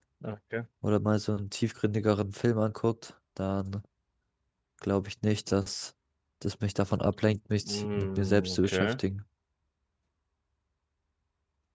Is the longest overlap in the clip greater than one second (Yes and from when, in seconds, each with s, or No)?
Yes, from 7.5 s